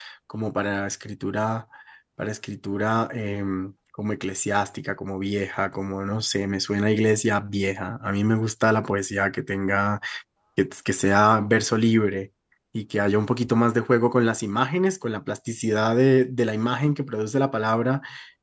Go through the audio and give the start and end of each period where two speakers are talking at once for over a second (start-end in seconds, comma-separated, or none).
none